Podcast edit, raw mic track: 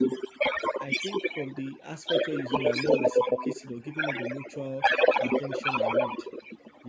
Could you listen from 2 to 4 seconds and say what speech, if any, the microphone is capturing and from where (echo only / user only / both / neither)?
both